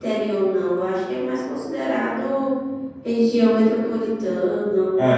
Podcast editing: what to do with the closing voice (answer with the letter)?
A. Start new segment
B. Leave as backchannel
A